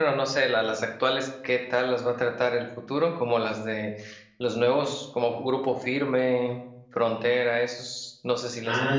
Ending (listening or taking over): taking over